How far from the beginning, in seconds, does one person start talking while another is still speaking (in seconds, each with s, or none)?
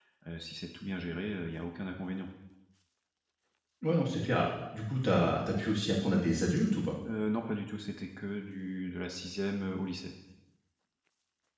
none